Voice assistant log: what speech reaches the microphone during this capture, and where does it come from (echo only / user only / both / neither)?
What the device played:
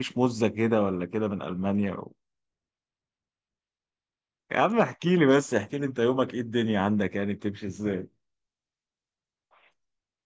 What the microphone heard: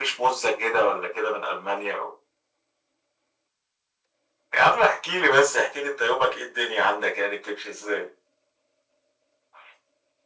echo only